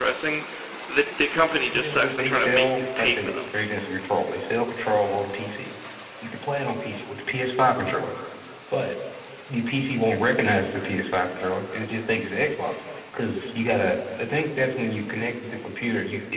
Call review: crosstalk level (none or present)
present